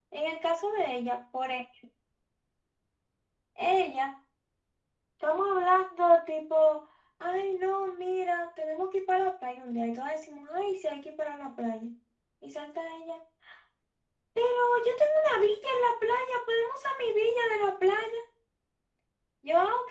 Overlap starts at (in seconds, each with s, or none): none